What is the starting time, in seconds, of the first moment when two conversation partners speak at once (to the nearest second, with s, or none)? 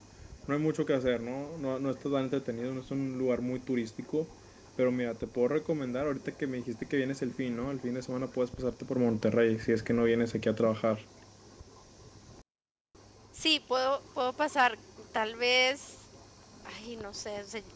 none